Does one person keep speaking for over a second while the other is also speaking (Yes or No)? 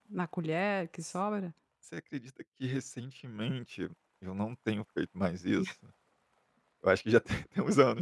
No